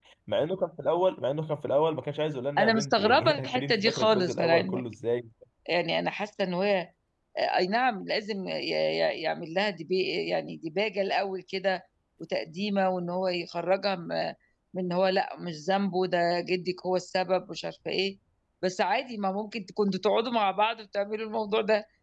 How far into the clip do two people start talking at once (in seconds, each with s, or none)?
2.6 s